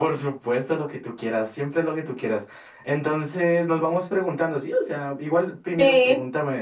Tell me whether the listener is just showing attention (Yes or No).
Yes